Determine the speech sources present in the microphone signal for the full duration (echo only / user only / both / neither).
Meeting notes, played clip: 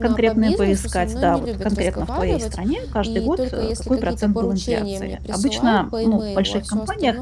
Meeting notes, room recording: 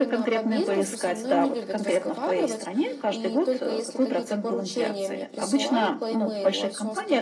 echo only